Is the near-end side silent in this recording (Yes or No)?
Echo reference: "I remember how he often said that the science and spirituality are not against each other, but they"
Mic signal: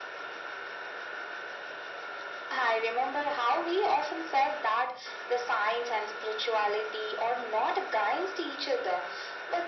Yes